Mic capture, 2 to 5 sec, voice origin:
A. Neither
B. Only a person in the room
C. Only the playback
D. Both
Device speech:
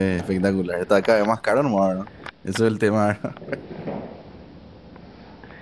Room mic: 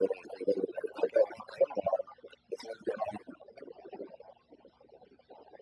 C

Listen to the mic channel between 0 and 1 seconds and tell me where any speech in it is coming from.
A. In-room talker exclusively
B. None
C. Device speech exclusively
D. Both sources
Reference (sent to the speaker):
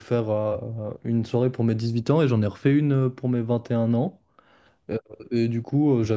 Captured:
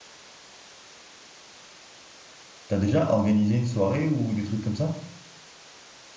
B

